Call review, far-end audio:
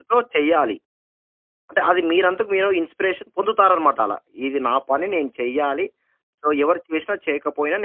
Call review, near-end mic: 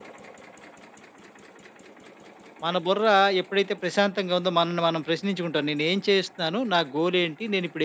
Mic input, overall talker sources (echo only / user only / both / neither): user only